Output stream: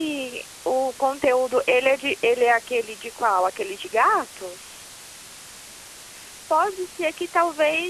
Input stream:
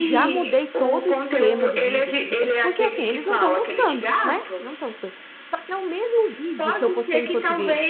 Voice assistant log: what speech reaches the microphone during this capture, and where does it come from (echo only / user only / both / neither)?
both